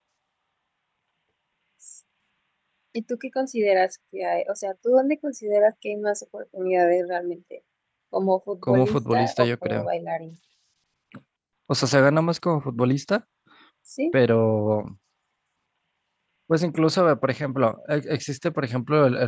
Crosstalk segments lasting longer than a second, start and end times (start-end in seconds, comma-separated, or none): 8.7-9.9